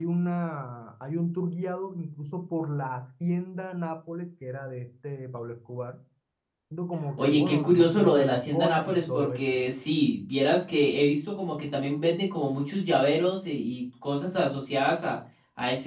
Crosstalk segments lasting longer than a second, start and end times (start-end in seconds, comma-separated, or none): 7.2-9.6